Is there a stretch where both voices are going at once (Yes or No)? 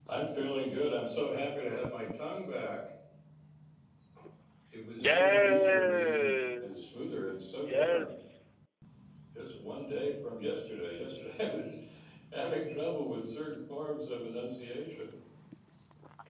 Yes